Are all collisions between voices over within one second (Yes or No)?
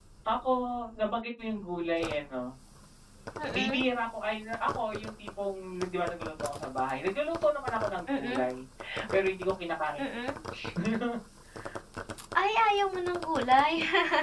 Yes